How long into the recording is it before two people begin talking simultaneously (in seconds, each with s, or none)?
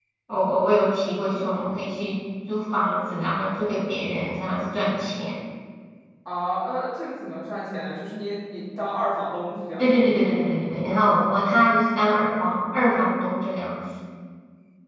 none